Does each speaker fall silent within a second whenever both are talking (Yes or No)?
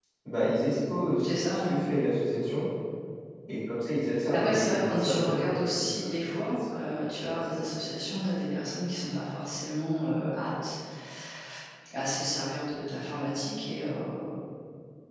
No